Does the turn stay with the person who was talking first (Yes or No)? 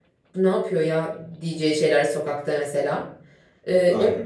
Yes